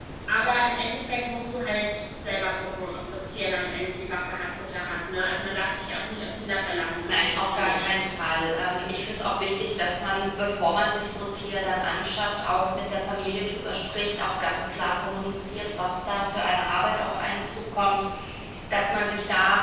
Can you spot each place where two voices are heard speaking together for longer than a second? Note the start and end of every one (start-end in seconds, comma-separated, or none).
7.1-8.6